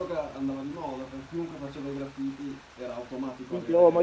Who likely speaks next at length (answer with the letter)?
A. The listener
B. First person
A